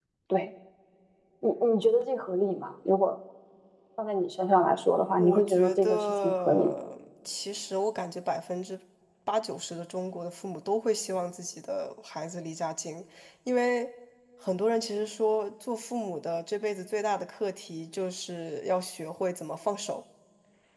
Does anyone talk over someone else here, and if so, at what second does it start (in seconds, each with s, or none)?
5.2 s